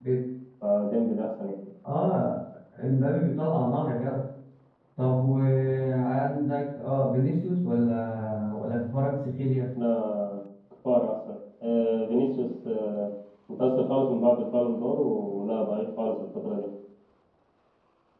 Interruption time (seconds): none

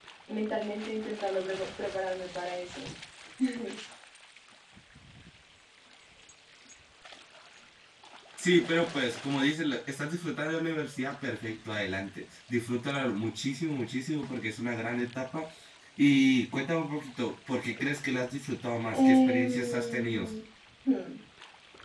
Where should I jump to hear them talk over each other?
19 s

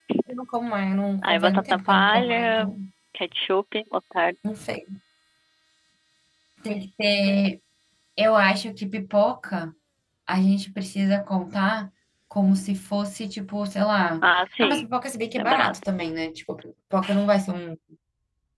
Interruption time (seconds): 1 s

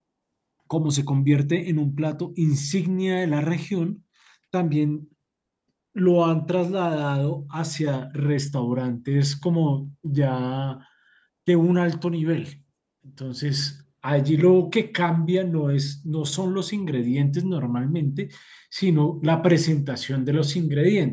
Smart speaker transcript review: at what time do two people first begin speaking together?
none

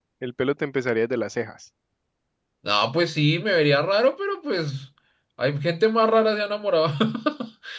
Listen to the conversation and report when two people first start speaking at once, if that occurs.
none

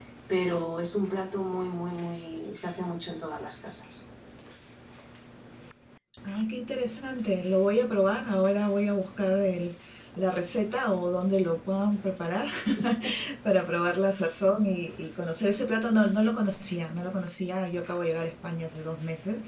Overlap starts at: none

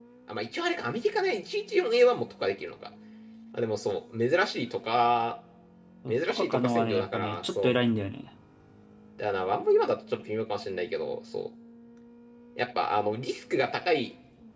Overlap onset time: 6 s

